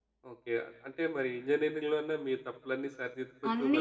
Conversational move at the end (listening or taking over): taking over